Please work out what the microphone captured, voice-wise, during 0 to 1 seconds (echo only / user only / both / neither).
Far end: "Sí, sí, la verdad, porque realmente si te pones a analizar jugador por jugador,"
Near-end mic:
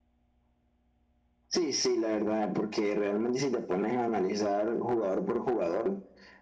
neither